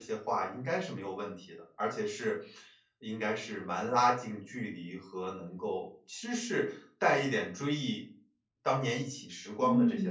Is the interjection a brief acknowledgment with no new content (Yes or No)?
No